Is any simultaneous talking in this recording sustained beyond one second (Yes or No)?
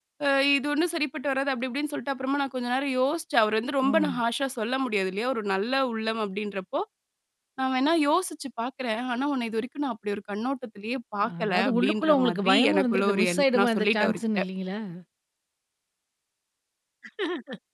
Yes